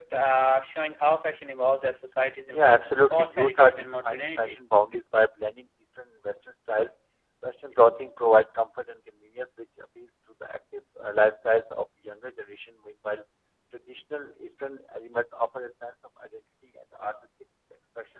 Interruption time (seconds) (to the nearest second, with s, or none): 3 s